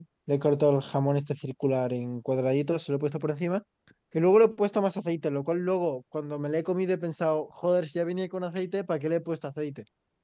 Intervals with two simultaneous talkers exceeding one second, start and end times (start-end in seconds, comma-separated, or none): none